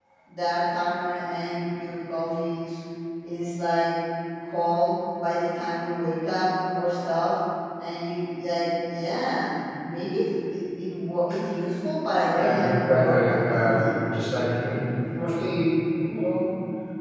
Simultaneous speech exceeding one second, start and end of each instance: 12.3-13.9

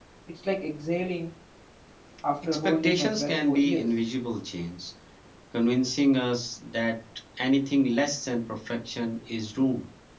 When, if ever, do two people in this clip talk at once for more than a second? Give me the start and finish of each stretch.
2.4-3.9

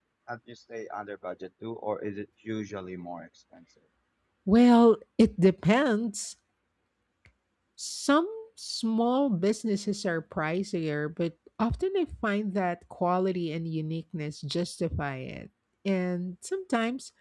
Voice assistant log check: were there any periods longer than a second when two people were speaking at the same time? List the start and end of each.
none

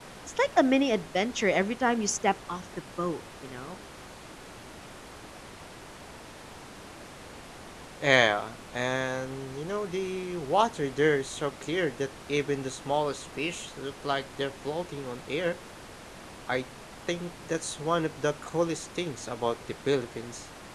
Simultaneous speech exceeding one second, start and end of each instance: none

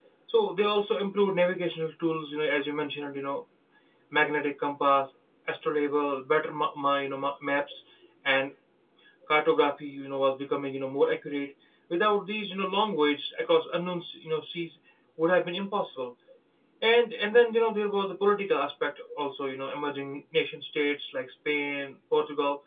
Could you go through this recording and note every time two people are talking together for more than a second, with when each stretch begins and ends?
none

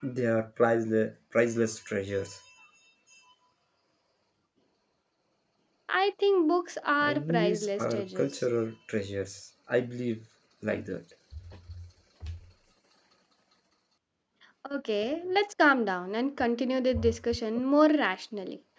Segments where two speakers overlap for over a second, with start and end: 7.0-8.3

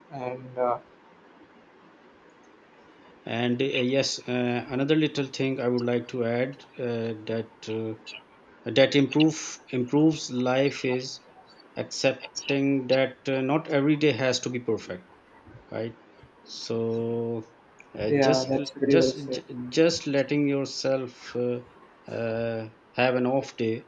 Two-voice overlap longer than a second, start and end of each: 18.1-19.4

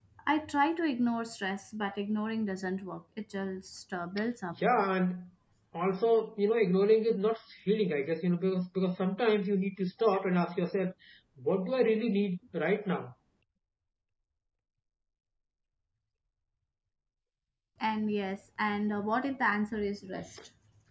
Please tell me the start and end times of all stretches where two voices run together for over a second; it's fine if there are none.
none

